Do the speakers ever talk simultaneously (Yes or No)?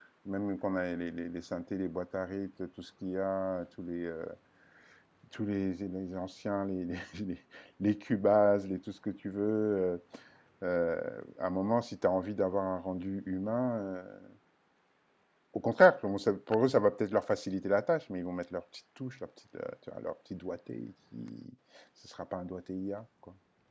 No